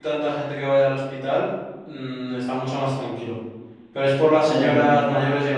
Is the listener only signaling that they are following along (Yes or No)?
Yes